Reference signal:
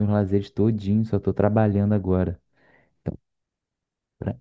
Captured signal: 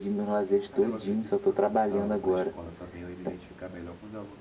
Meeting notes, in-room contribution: present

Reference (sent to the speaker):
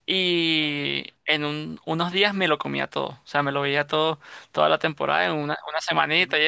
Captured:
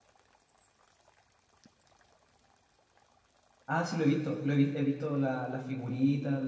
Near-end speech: present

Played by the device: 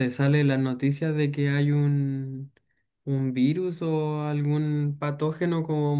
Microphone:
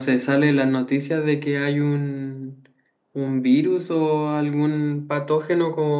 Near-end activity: none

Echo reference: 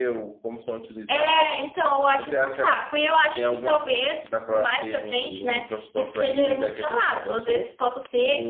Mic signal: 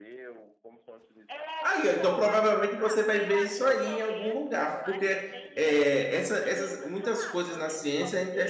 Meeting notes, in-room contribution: present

